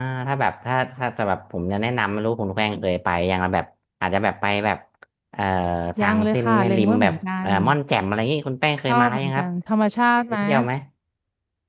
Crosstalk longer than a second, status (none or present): present